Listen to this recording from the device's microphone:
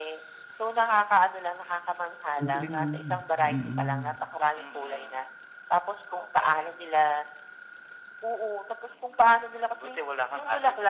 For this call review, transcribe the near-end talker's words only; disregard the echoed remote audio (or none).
Ang galing no'n, mm.